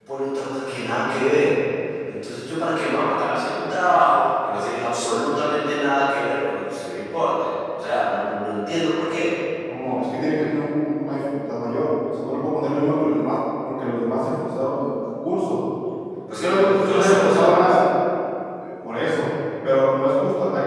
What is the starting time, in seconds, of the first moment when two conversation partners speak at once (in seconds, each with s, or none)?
16.4 s